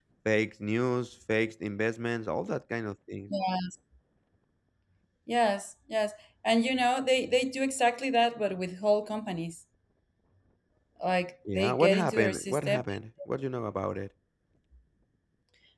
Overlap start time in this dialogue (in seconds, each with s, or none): 11.5 s